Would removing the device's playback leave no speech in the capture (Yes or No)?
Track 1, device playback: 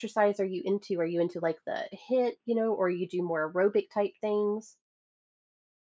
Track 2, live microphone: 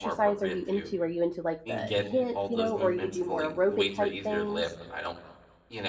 No